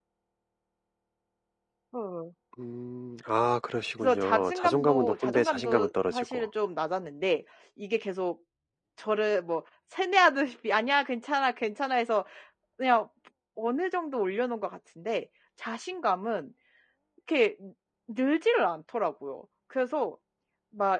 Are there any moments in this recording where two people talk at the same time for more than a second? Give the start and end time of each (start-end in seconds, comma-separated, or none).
4.0-6.5